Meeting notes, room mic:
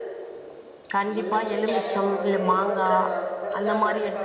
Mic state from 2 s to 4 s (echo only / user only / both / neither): both